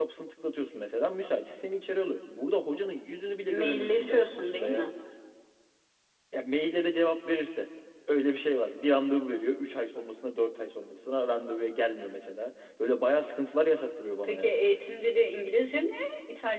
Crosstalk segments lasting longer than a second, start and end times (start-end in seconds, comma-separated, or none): 3.5-4.9